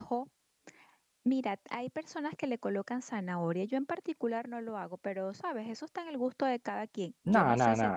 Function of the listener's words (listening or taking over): taking over